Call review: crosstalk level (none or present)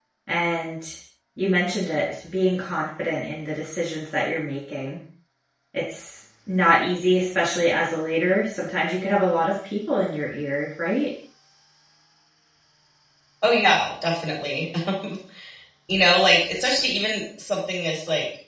none